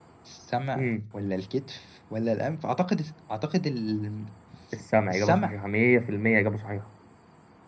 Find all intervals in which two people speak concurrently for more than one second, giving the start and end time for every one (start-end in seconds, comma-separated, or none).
none